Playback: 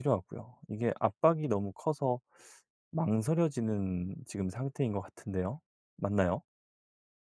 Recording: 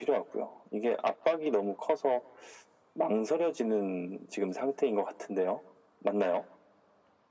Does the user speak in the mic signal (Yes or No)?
No